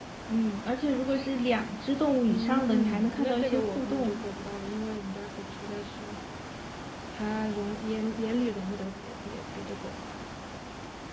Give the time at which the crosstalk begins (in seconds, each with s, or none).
2.3 s